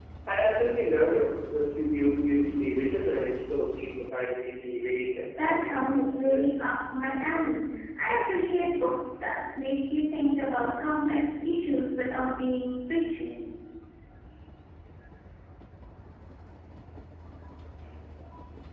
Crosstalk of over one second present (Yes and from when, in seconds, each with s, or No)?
Yes, from 5.4 s